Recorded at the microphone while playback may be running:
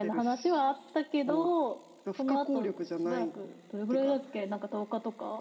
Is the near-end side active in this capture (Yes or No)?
No